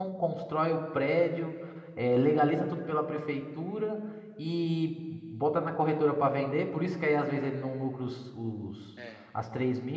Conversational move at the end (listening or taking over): listening